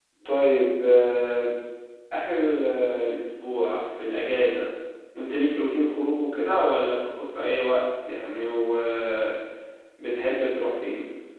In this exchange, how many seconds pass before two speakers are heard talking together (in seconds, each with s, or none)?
none